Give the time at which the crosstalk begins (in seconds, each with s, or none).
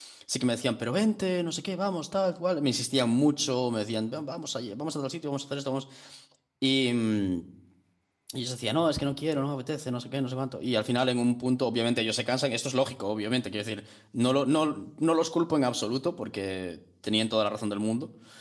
none